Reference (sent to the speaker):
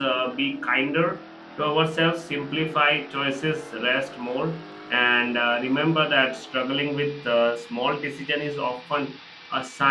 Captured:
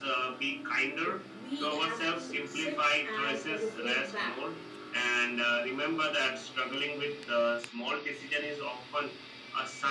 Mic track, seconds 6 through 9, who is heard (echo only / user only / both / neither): echo only